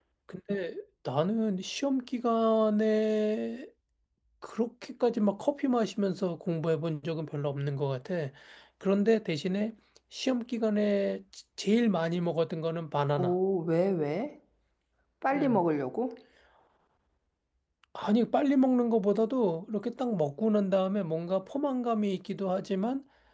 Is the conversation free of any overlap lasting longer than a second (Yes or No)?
Yes